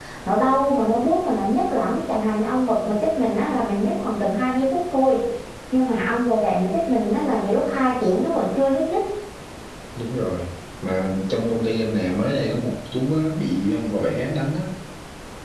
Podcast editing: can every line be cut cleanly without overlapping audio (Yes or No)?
Yes